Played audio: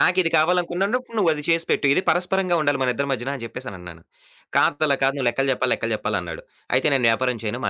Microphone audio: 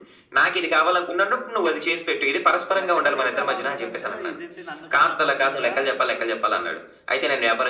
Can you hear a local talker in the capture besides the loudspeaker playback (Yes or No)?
Yes